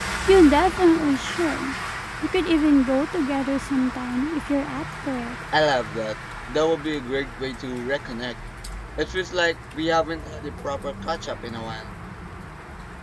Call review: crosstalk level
none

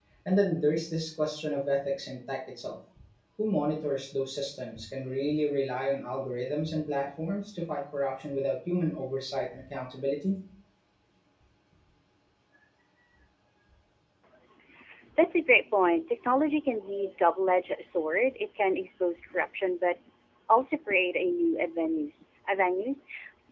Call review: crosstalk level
none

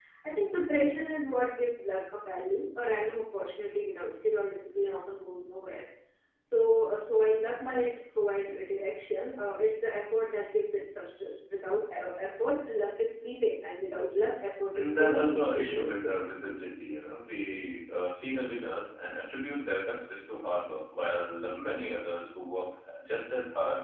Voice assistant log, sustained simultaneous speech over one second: present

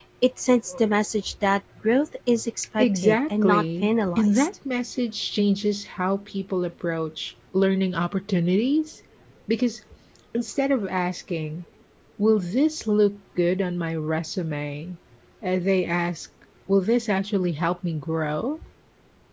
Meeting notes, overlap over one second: present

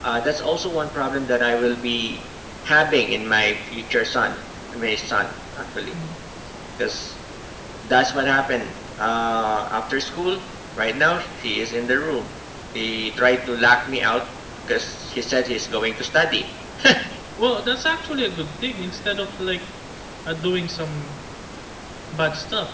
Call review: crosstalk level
none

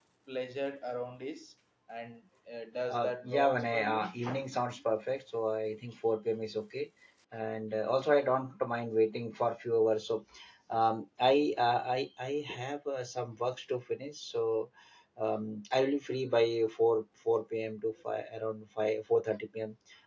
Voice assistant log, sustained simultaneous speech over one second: present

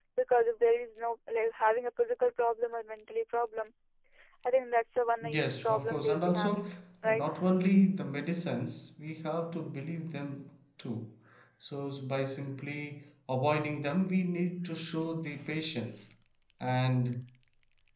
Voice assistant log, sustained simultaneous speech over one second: present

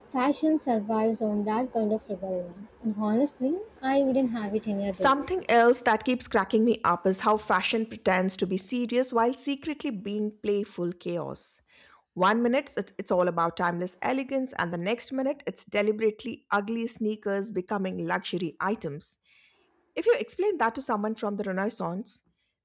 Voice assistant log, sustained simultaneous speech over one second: none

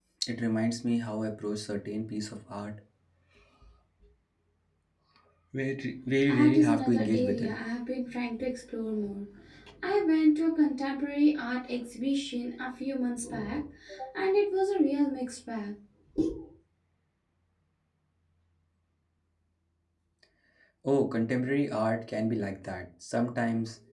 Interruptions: present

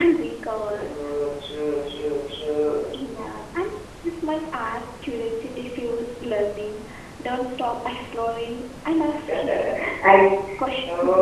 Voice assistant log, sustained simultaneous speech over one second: none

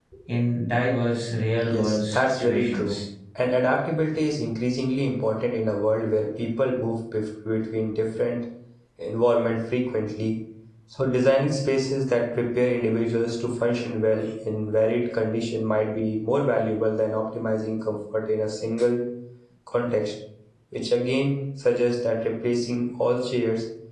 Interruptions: present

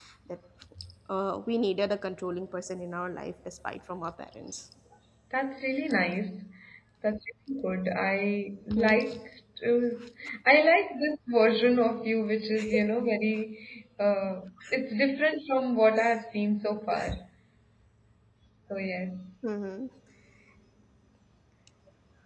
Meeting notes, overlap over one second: none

